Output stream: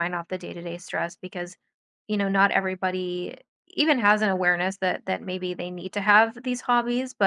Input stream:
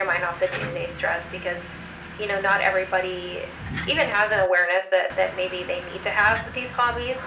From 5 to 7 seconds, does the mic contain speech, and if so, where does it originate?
echo only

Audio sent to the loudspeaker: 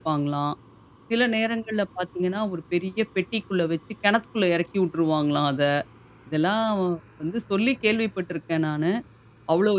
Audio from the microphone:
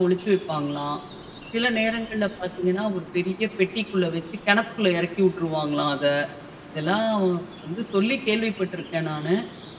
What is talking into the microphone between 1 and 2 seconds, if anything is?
echo only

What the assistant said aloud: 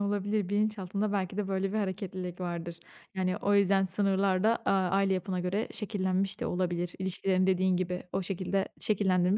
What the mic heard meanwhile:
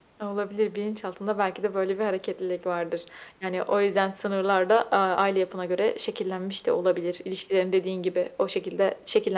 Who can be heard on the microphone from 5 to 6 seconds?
echo only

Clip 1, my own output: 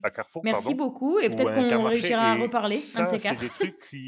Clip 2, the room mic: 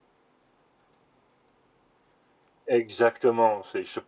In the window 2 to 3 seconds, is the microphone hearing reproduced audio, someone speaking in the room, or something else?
user only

